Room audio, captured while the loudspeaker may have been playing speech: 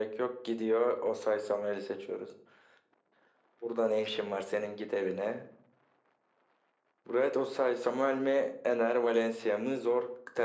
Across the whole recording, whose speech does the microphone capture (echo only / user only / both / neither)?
echo only